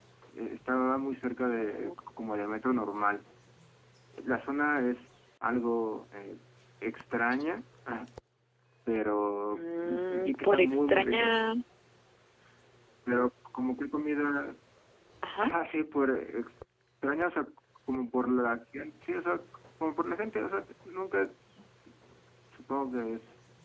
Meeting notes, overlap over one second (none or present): present